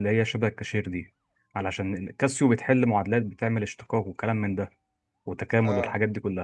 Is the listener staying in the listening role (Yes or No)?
Yes